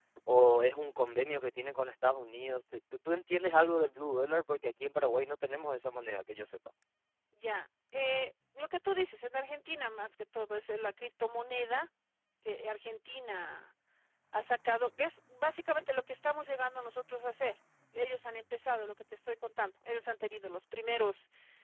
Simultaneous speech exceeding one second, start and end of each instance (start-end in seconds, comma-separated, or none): none